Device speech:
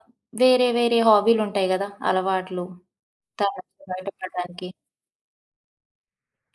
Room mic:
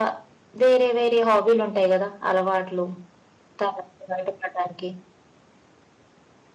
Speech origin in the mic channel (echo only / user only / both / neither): echo only